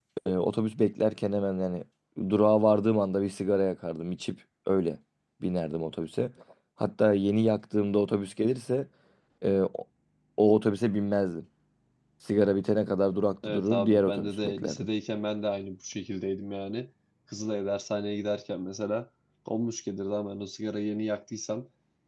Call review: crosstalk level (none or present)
present